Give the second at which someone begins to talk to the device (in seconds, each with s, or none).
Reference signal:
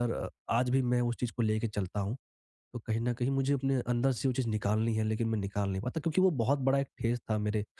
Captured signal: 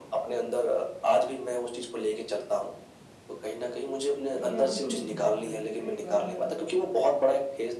4.4 s